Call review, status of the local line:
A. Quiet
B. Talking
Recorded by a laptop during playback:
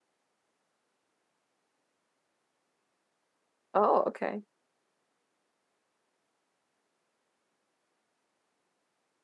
B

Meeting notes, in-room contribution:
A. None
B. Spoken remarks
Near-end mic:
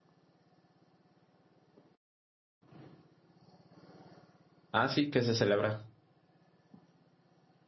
B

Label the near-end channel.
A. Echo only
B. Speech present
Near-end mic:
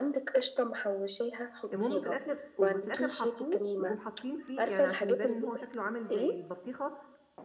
B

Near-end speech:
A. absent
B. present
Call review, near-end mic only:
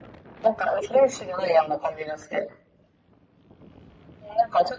A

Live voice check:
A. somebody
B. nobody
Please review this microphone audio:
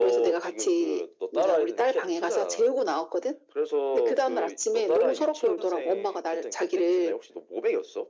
B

